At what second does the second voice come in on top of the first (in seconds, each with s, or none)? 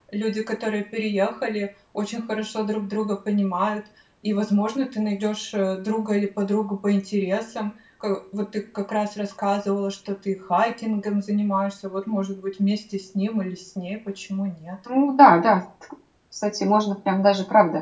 none